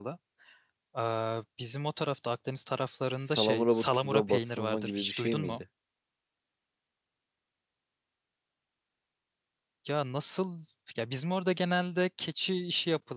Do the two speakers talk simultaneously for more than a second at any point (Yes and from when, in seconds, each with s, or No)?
Yes, from 3.2 s